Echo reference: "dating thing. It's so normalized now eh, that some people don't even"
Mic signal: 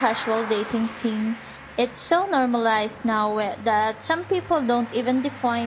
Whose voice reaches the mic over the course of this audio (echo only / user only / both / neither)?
echo only